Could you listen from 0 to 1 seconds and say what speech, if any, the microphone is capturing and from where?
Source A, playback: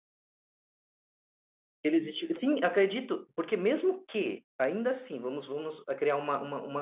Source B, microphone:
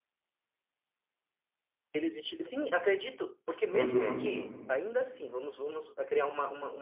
neither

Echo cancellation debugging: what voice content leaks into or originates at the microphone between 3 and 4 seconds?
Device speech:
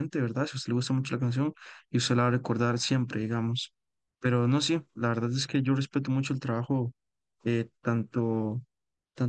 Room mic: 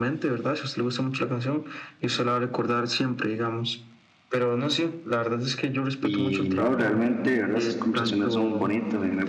echo only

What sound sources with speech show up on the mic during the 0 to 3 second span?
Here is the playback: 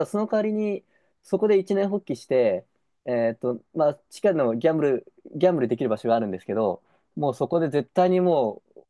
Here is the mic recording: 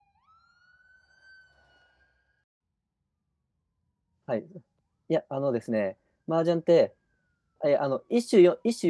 neither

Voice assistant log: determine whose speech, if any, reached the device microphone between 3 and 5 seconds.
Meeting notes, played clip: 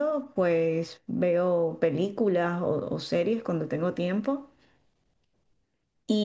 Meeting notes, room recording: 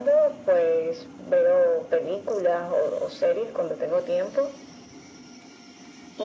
echo only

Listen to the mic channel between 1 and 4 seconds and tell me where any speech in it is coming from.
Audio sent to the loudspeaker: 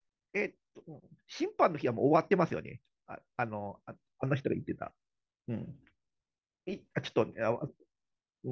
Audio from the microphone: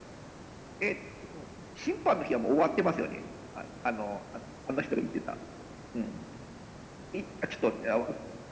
echo only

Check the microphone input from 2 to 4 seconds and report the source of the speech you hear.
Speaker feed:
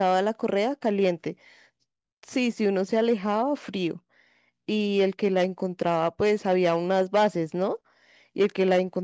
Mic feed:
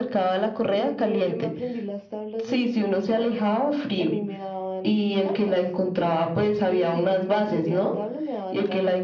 both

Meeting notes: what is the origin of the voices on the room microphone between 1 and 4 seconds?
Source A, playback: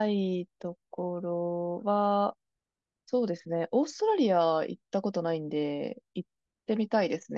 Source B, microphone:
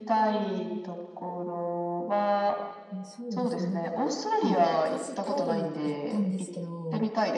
both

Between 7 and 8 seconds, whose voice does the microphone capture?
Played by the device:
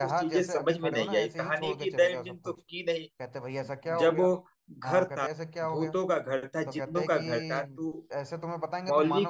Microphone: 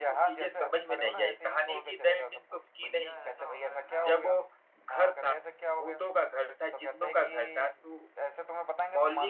echo only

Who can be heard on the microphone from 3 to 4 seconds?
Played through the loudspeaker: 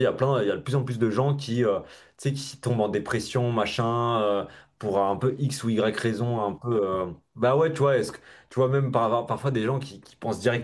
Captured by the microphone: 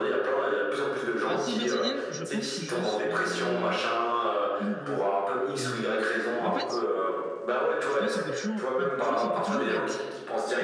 both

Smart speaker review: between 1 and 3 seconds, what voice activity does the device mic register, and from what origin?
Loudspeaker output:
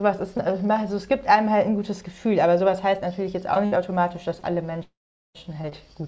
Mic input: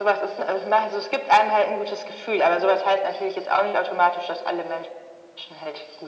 echo only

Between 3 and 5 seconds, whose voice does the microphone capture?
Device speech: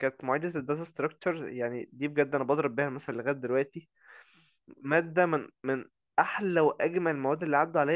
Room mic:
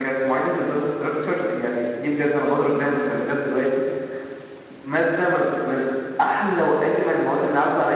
echo only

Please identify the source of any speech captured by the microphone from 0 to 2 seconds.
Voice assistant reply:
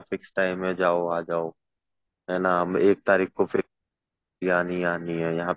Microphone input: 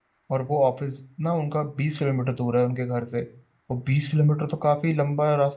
user only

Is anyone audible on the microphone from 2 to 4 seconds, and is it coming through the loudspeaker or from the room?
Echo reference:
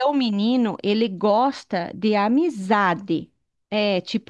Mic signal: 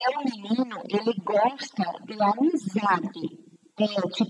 echo only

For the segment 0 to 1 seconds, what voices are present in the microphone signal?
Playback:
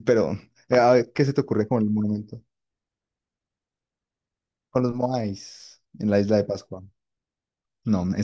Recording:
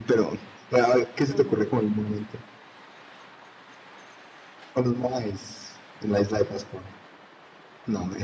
echo only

